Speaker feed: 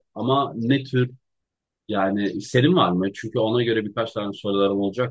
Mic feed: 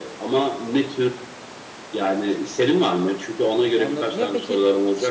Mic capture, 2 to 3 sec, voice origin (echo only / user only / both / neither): echo only